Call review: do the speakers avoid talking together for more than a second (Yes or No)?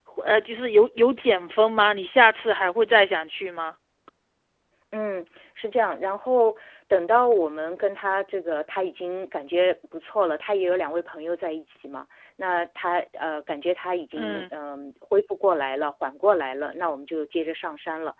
Yes